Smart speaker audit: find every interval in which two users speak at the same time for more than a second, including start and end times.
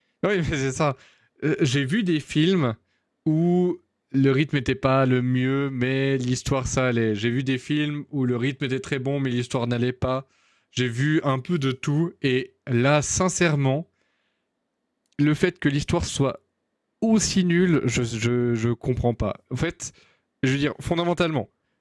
none

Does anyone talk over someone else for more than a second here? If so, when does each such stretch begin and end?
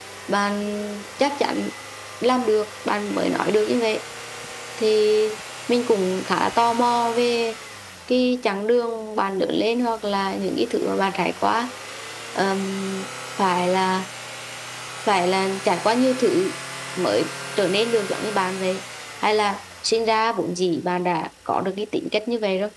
none

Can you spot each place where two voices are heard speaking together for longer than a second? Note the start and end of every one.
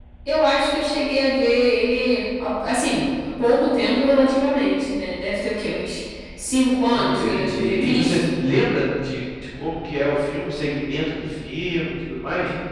6.9-8.2

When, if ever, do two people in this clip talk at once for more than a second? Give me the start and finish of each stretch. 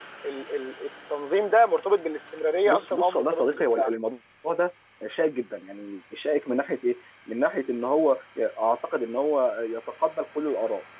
2.6-3.9

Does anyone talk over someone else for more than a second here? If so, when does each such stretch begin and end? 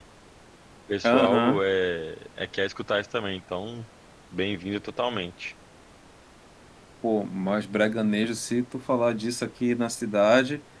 none

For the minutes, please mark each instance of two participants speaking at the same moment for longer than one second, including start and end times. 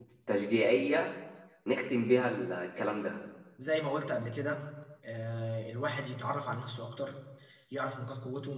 none

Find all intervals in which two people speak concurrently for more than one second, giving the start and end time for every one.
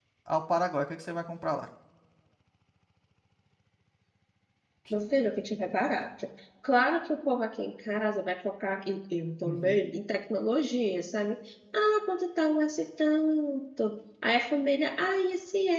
none

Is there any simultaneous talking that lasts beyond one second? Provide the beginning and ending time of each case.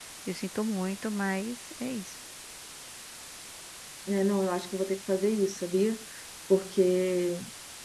none

